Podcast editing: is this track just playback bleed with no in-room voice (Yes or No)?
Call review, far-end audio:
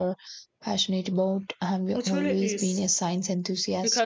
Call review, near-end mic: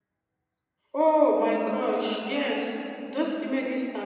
No